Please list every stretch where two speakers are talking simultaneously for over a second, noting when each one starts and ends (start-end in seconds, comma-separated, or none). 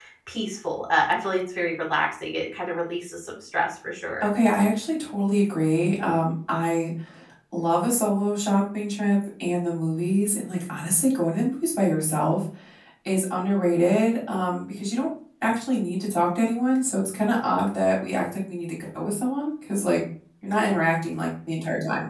none